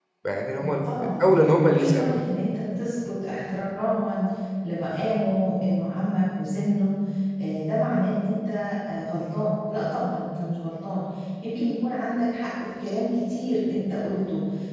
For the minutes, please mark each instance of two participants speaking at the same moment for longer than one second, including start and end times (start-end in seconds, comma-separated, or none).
0.6-2.2